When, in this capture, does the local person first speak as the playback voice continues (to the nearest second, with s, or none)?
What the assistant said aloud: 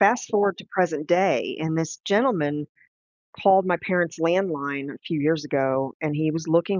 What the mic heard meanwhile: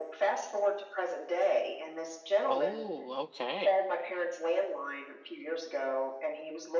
2 s